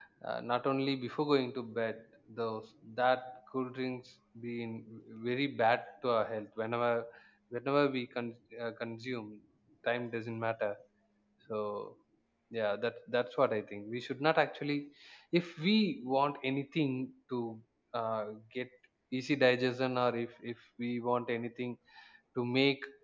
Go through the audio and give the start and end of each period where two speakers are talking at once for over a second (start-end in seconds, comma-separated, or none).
none